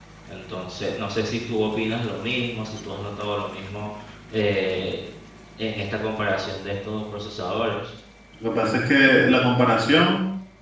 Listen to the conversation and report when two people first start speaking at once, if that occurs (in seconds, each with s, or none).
none